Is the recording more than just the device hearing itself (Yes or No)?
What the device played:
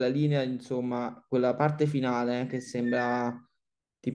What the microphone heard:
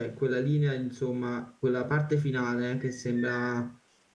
No